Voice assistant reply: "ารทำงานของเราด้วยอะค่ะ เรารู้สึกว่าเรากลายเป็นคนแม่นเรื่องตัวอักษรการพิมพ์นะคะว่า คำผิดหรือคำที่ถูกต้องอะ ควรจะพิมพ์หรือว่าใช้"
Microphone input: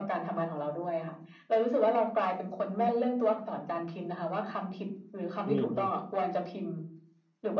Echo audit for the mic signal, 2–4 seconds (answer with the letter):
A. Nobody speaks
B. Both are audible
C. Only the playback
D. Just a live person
C